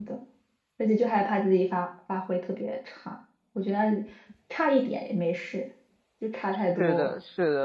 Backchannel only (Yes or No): No